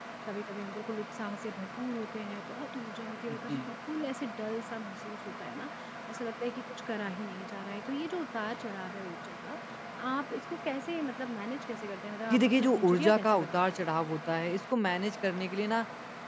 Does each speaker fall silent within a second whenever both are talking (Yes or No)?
No